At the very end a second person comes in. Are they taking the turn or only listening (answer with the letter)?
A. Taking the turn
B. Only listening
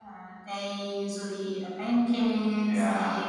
B